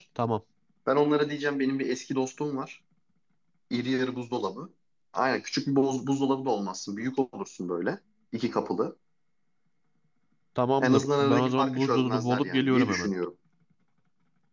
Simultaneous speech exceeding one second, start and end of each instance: 10.8-13.1

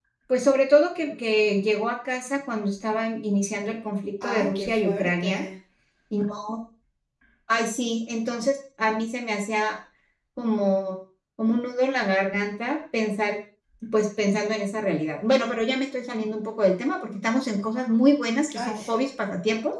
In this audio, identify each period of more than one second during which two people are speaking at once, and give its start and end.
4.2-5.4

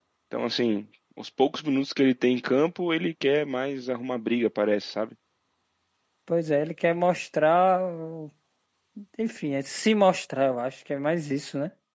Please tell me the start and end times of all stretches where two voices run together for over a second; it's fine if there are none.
none

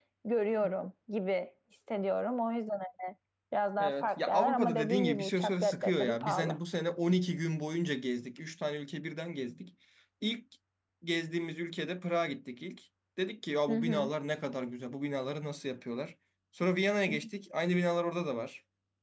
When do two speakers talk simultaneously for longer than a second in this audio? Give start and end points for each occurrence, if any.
3.8-6.6

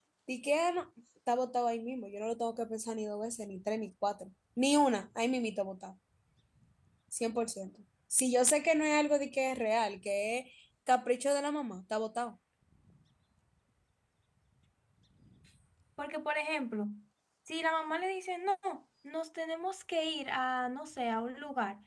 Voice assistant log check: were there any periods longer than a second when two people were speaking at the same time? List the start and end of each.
none

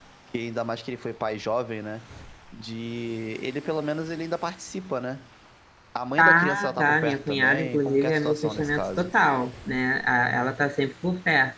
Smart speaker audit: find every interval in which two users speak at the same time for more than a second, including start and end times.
6.2-9.1

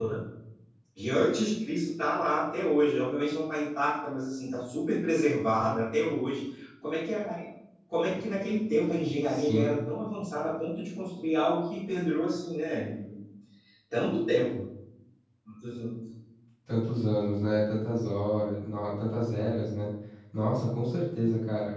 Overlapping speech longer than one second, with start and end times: none

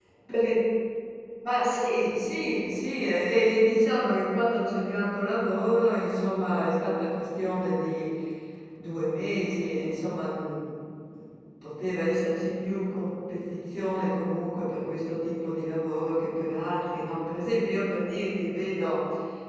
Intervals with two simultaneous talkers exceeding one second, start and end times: none

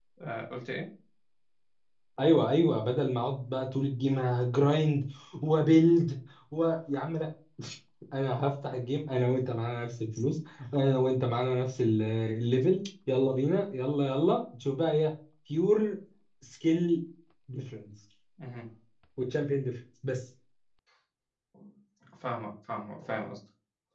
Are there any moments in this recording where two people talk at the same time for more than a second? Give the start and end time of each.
none

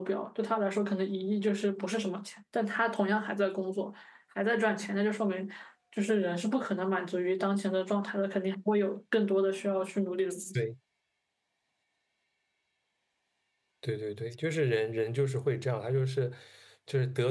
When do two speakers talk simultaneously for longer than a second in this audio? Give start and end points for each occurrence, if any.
none

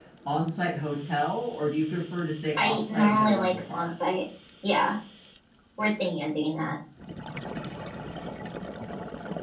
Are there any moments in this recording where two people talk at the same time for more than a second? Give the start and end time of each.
2.6-3.9

